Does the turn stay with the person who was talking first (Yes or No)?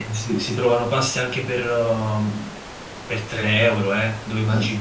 No